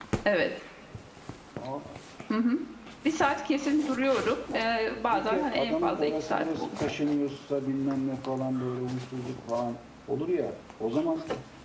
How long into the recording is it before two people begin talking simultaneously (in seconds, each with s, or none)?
5.1 s